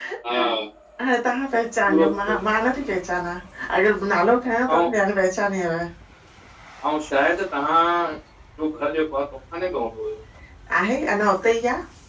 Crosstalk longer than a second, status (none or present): none